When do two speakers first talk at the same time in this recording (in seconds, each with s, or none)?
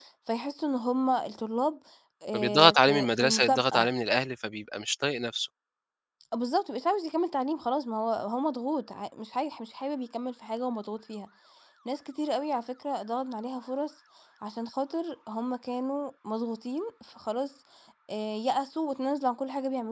2.3 s